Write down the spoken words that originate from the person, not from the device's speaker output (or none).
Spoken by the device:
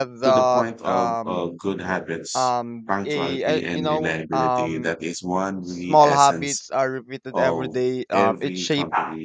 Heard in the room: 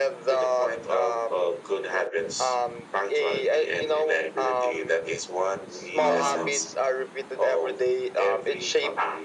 um